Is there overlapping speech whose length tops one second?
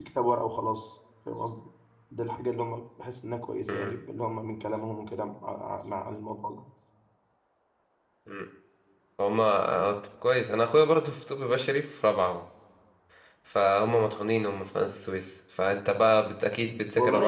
No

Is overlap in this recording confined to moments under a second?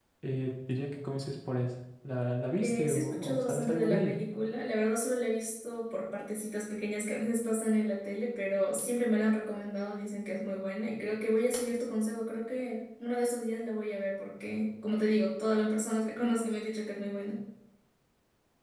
No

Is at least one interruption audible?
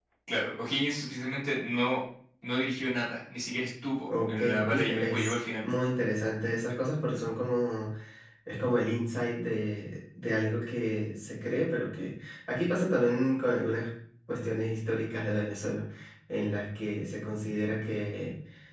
Yes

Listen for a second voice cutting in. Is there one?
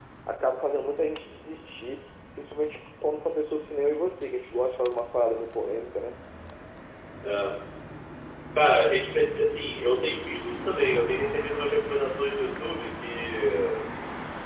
No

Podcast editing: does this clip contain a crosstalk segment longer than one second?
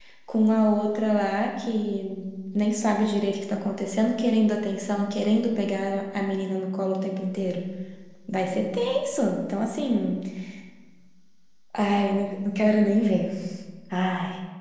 No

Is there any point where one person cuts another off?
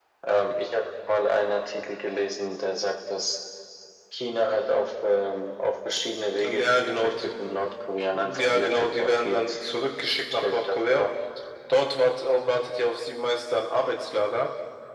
Yes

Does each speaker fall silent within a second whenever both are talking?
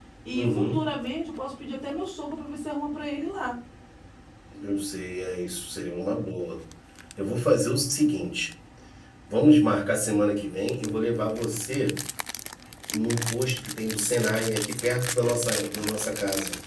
Yes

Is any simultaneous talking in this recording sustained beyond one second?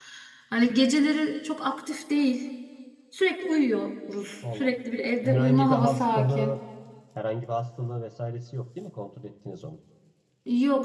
Yes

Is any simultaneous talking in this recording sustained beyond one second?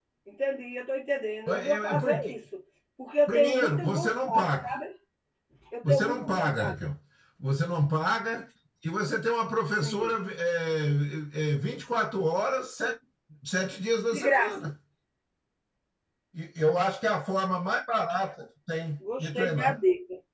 Yes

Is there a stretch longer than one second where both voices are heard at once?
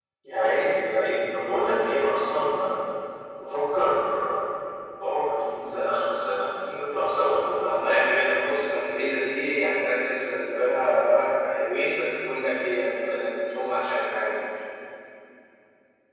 No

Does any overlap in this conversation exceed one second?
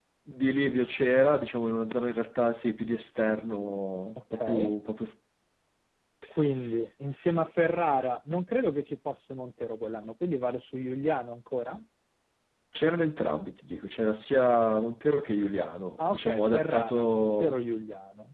Yes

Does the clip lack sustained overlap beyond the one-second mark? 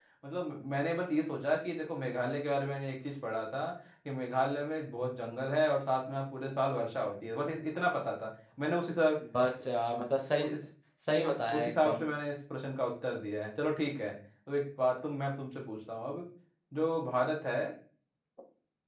Yes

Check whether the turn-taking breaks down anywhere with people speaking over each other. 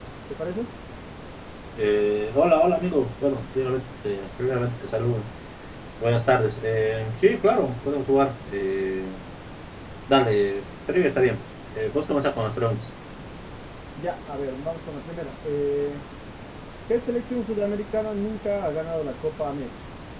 No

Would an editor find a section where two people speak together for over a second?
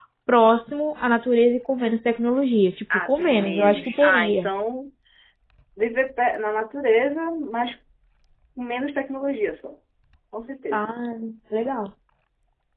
Yes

